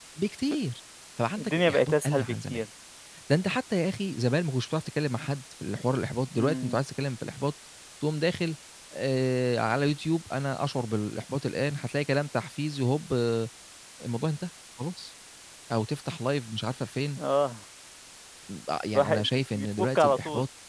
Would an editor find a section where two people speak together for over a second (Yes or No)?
Yes